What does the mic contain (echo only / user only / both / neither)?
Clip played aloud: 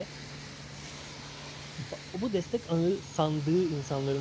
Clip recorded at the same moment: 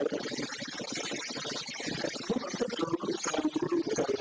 echo only